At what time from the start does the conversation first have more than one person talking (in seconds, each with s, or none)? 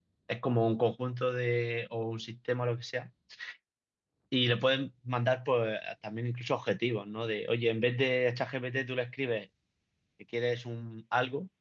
none